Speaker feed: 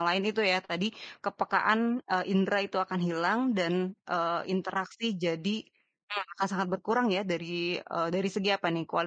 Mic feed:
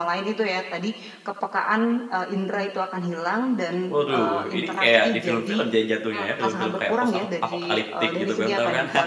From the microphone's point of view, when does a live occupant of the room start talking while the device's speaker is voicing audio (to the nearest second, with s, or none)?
4 s